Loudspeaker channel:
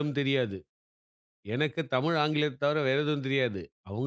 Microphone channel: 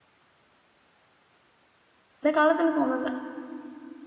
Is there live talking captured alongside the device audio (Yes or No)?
Yes